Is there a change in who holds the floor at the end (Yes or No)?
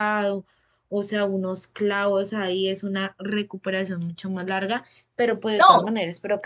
No